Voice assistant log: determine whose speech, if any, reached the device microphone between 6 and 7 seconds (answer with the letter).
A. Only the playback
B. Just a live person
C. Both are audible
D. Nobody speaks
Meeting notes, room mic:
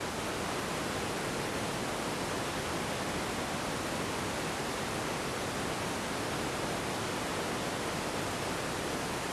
D